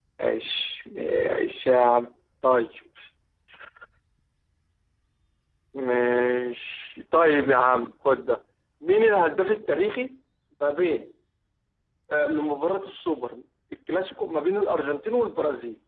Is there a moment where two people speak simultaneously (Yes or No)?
No